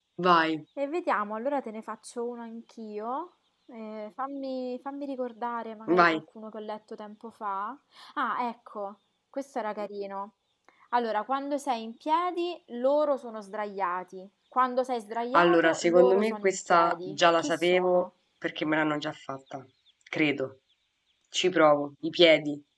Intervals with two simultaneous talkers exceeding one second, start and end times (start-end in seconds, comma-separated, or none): 15.3-18.1